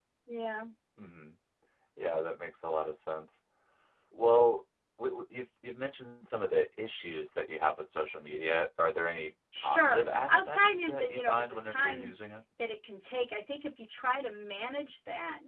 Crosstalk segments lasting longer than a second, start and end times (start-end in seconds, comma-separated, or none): 9.6-12.1